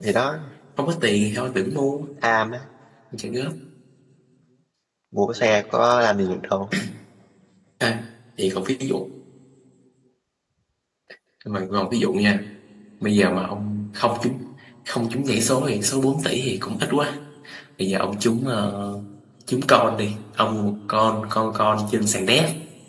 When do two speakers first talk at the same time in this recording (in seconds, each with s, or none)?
none